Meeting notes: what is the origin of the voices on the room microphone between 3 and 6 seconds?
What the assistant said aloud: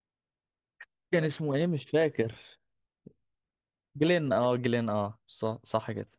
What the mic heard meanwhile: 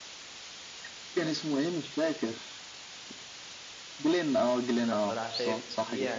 both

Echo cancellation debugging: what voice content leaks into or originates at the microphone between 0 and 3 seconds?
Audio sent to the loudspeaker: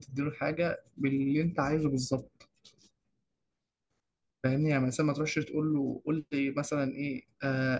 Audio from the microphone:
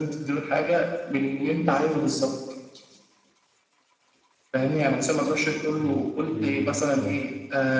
echo only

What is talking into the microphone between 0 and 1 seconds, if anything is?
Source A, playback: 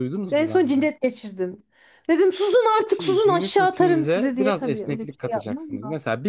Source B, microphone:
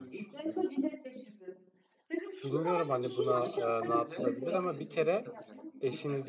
both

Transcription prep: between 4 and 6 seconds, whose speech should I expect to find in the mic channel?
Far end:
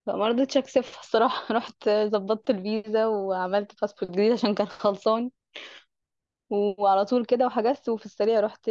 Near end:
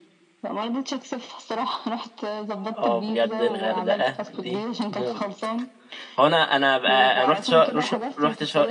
both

